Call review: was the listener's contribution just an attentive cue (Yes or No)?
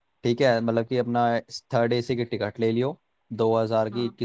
Yes